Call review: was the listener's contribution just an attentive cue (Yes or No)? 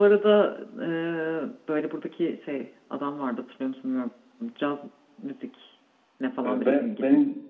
No